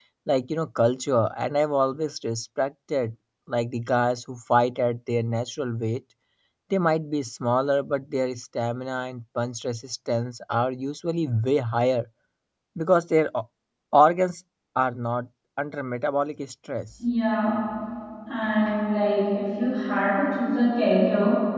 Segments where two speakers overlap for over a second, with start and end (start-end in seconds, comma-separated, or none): none